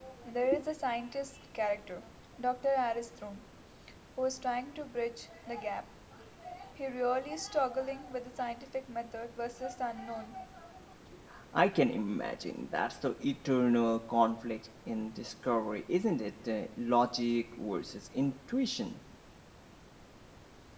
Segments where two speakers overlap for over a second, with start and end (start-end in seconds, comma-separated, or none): none